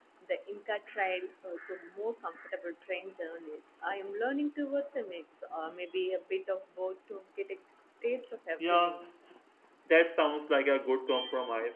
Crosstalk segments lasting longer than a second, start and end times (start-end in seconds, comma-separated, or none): none